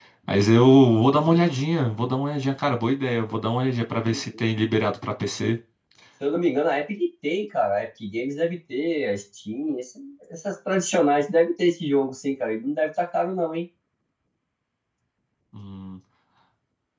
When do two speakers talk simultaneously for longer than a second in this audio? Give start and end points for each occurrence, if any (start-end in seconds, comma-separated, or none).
none